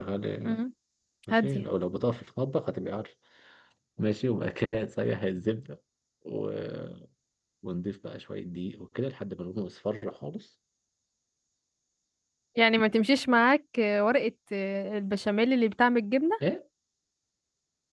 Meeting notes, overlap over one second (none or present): none